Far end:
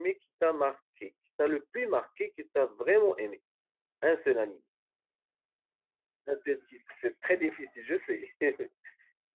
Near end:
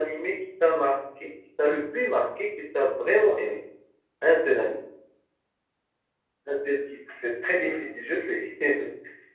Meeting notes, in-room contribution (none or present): none